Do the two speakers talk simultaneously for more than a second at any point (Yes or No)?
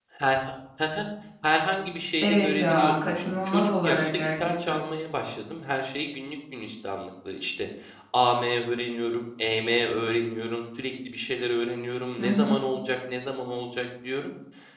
Yes